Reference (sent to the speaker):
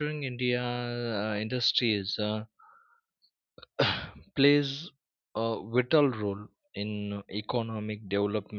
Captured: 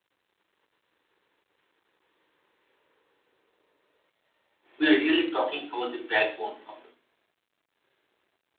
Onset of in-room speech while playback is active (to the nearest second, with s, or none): 5 s